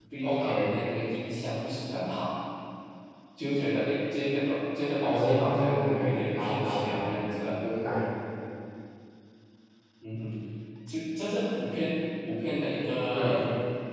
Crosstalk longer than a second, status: present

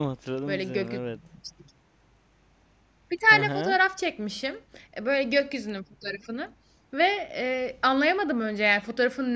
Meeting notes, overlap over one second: none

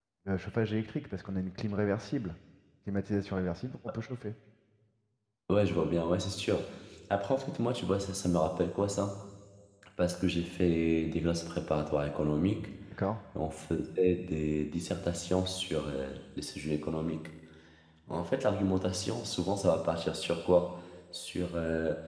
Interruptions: none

